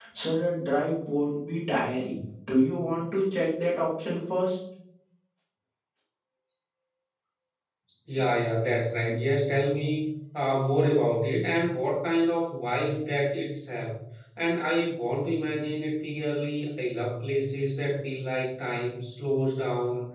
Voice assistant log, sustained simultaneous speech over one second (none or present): none